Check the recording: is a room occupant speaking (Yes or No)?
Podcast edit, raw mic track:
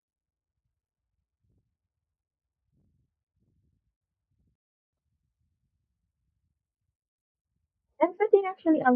Yes